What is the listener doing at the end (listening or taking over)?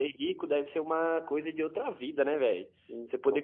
listening